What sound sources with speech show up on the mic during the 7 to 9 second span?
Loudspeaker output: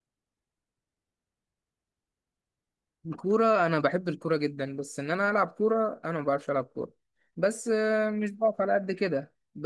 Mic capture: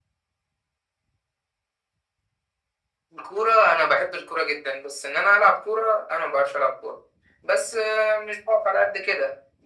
echo only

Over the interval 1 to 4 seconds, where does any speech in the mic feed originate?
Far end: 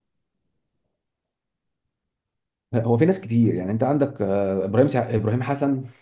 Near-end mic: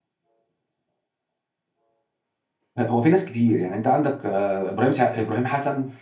echo only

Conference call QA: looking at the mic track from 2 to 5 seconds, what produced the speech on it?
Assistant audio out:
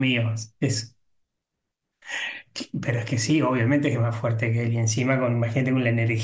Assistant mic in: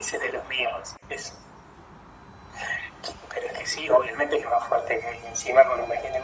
echo only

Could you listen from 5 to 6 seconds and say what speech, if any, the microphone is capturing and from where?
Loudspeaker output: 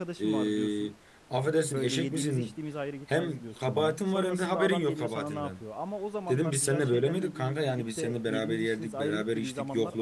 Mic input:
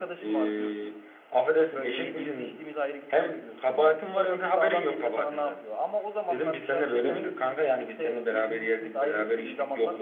echo only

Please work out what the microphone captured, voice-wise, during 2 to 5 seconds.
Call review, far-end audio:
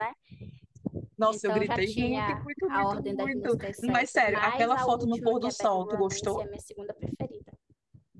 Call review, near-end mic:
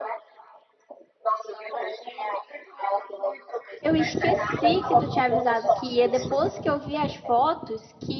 both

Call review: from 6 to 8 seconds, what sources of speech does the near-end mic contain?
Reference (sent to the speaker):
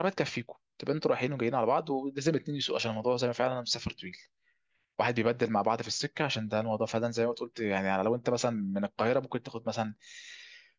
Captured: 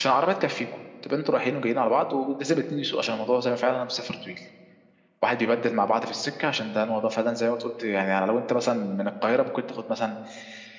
echo only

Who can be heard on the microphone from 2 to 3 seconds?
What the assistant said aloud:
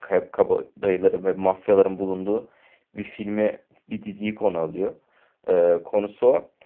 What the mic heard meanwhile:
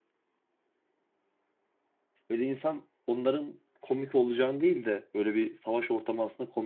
user only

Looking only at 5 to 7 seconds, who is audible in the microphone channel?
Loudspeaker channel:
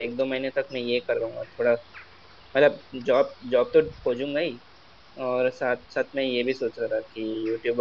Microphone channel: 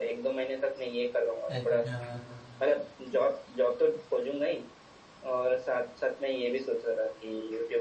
echo only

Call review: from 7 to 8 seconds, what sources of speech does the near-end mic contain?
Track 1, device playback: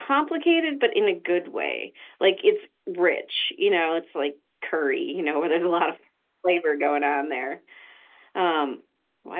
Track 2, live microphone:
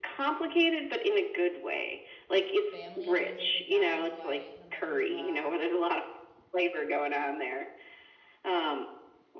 echo only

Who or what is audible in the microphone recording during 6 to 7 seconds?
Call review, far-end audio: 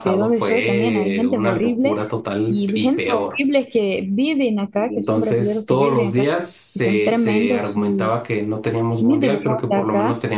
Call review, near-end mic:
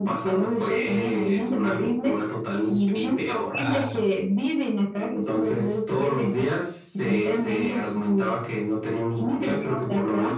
echo only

